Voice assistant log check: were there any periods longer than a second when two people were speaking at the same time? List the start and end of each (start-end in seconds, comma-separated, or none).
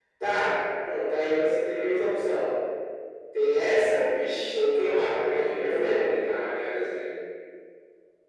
4.5-6.0